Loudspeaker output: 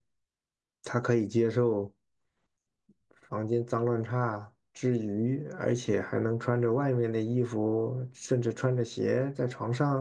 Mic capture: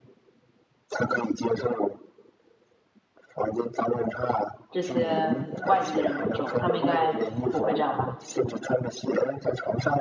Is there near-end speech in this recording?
Yes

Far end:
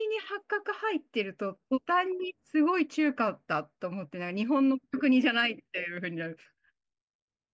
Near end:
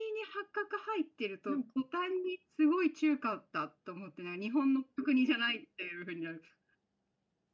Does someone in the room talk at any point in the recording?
Yes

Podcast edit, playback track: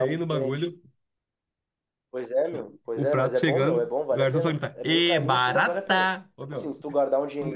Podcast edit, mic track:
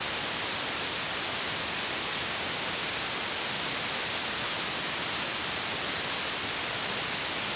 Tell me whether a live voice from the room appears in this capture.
No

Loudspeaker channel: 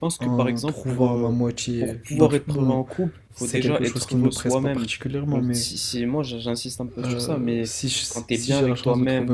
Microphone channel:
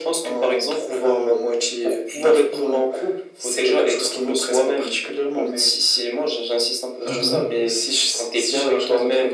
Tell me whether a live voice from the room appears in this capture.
Yes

